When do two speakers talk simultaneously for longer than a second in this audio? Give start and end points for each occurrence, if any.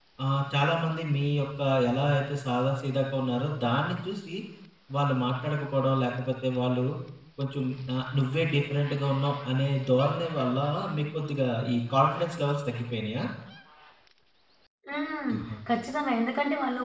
none

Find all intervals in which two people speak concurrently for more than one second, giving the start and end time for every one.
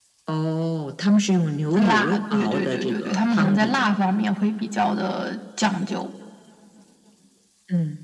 1.8-3.9

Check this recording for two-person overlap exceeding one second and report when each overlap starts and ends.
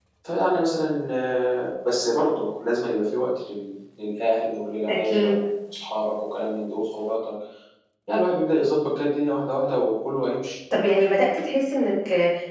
none

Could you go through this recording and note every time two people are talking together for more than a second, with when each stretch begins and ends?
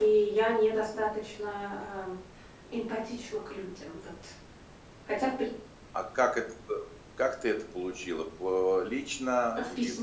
none

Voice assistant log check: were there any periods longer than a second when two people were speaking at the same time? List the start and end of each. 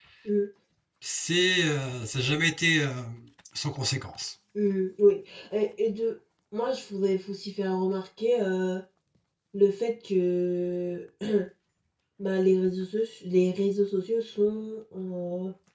none

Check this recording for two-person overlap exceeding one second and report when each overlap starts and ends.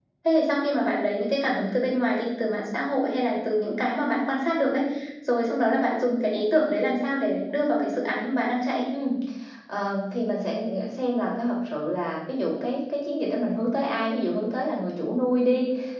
none

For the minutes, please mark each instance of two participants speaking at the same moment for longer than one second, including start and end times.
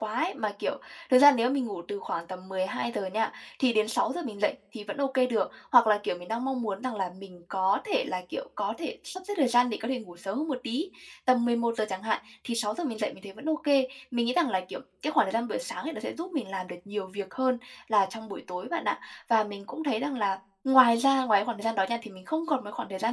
none

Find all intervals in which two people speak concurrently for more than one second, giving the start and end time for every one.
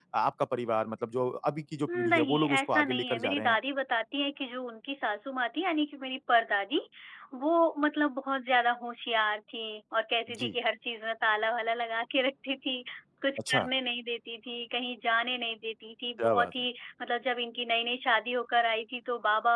1.9-3.6

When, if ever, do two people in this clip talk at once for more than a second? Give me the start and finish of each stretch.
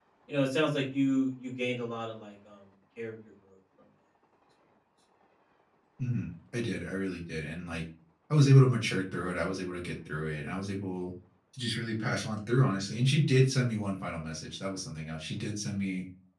none

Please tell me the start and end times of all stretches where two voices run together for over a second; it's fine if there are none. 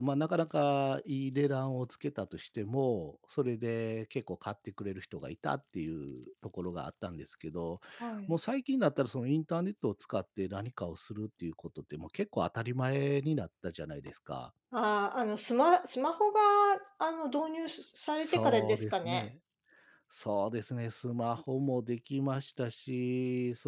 18.0-19.2

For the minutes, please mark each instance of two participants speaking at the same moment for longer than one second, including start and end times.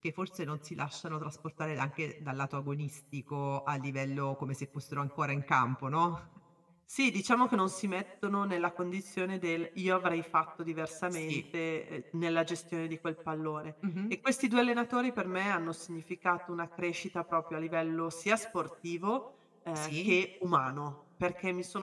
none

